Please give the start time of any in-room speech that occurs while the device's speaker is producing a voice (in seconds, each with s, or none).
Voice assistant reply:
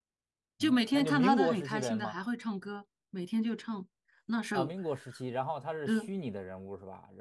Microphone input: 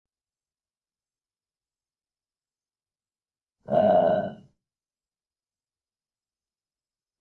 3.7 s